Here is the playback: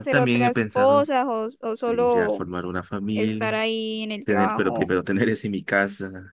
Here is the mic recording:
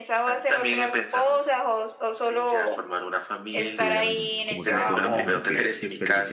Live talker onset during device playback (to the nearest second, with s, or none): 4 s